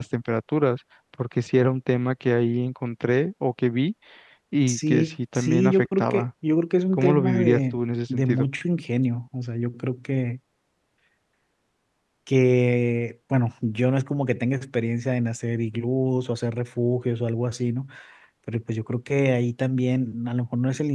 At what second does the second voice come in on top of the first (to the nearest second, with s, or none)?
5 s